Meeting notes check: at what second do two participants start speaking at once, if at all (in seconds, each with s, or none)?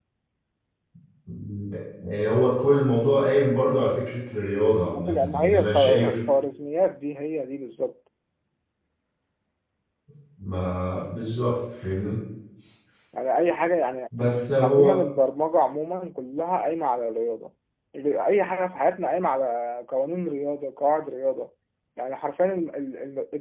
4.9 s